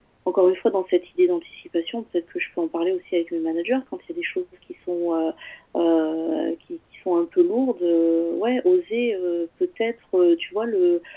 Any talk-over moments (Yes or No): No